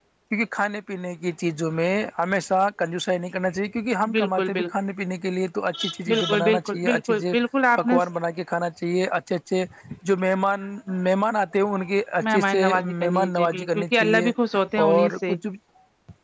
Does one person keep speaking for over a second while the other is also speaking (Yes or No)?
Yes